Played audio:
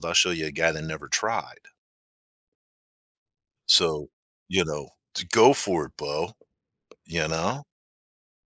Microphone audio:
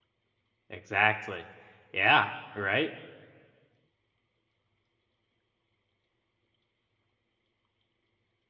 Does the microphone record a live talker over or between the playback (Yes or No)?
Yes